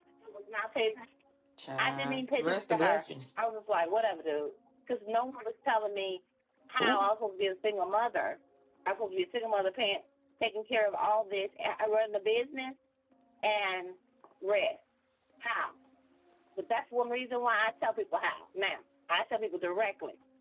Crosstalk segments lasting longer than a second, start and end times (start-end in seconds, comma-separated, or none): 1.8-3.0